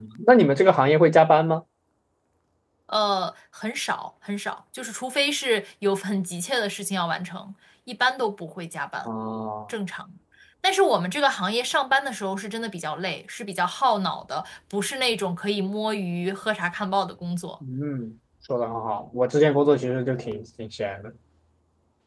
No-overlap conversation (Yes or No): Yes